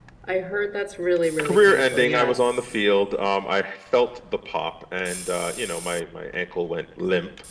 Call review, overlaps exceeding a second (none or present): present